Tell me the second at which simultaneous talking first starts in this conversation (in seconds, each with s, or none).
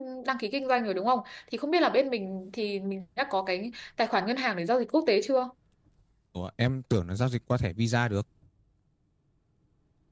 none